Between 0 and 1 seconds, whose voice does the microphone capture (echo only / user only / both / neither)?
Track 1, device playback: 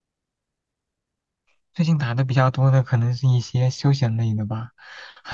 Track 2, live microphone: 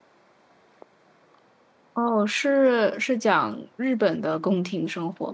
neither